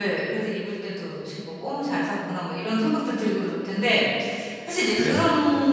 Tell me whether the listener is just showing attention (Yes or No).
Yes